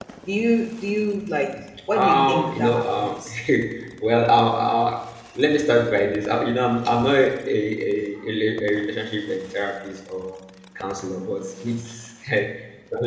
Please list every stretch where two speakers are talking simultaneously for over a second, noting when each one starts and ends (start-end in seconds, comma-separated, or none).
2.0-3.2